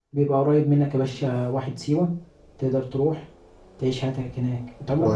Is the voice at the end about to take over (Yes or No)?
Yes